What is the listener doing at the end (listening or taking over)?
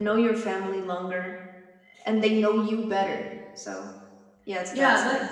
taking over